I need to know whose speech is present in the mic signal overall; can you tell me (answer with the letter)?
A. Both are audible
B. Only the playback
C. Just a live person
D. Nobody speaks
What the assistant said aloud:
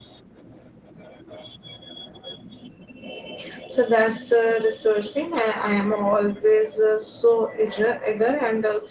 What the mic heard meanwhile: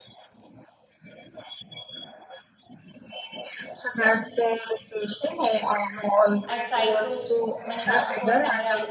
A